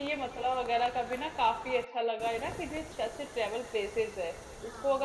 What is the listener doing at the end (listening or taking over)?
listening